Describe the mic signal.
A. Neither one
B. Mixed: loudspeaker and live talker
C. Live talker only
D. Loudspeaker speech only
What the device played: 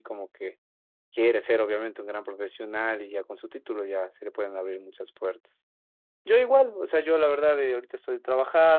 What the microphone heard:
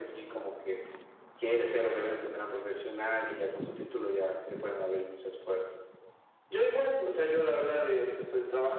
D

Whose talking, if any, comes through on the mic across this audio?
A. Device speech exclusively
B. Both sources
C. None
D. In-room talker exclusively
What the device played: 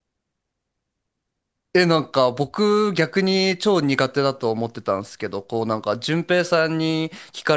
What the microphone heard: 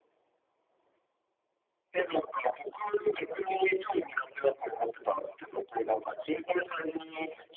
A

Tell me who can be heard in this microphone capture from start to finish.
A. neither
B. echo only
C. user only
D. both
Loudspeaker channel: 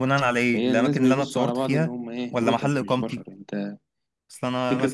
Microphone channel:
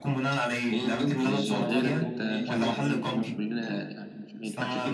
D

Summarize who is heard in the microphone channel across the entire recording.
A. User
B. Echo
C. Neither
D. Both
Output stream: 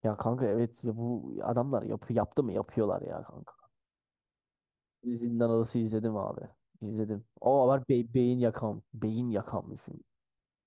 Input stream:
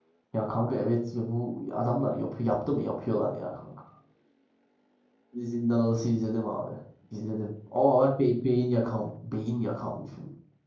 B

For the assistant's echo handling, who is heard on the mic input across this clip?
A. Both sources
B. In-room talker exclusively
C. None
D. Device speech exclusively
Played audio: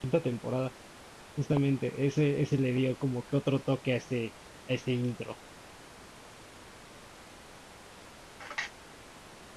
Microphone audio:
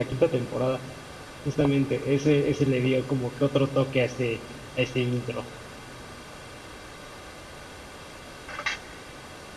D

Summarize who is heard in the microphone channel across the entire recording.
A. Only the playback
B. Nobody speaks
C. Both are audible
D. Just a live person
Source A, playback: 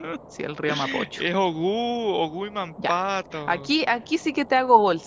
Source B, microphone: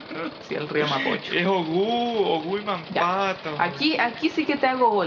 A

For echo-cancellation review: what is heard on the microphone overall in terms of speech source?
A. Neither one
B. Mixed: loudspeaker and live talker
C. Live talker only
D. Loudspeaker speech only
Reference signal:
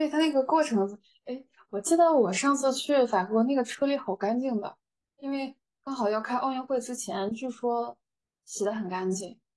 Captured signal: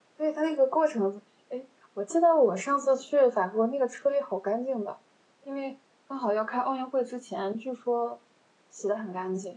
D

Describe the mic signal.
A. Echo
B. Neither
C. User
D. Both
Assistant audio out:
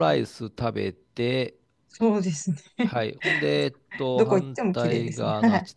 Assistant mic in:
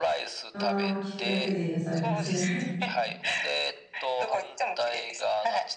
D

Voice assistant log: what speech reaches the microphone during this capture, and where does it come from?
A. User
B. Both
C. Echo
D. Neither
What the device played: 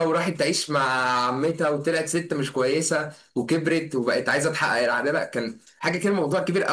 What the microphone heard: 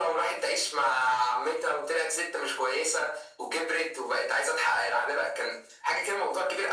C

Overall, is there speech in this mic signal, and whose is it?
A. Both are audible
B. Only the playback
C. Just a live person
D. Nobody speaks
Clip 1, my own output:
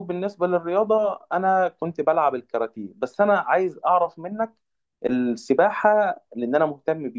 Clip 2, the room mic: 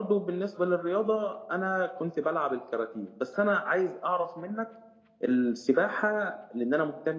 B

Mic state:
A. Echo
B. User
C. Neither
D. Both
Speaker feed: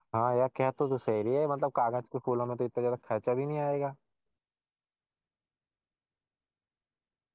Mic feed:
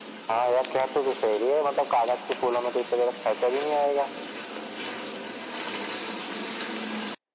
A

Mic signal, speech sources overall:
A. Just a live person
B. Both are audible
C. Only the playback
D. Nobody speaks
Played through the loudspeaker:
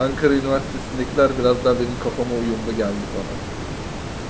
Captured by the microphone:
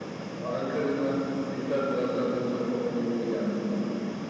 C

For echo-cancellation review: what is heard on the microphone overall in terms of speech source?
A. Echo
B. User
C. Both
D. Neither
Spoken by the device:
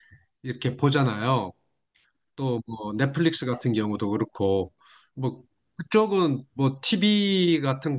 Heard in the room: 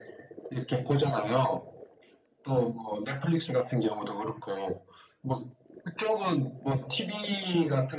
A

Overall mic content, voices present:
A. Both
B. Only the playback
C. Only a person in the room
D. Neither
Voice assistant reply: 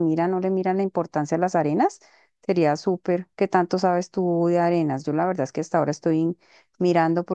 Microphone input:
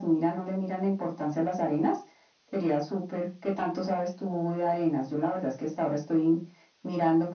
B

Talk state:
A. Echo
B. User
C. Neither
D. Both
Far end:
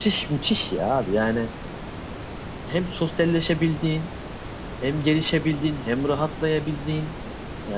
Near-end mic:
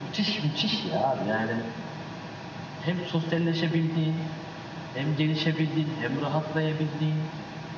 A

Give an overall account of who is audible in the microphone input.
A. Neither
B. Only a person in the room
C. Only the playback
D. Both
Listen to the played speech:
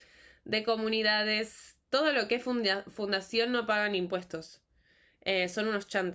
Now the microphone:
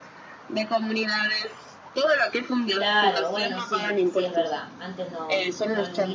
D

